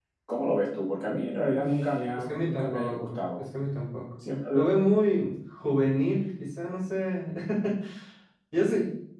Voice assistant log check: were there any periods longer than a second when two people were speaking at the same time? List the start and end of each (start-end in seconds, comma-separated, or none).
2.2-3.4